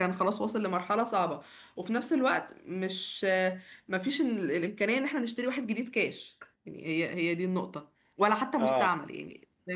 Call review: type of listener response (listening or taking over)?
listening